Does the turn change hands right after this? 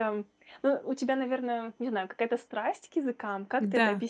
Yes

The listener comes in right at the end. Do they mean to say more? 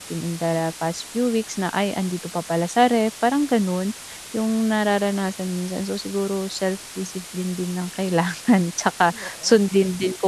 No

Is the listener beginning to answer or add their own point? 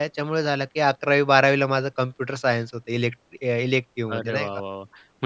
Yes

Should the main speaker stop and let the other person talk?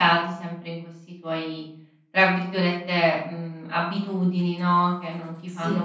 No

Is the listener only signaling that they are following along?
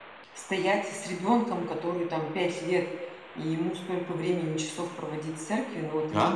No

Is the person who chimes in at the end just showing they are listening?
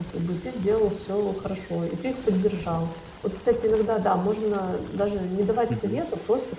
Yes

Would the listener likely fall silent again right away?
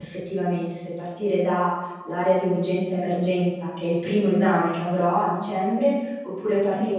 Yes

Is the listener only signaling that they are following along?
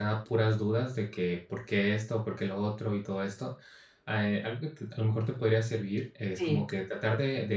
Yes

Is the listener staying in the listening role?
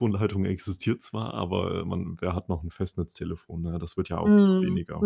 No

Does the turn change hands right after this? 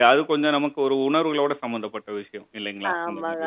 Yes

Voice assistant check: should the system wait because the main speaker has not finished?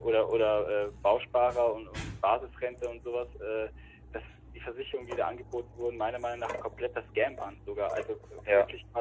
Yes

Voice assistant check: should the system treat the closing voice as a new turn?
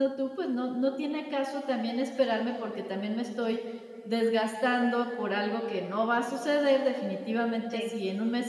No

